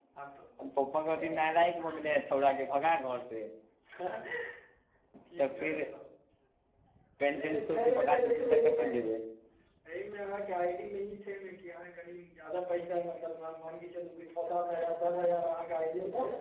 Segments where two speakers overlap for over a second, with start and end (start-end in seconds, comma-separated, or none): 7.4-8.9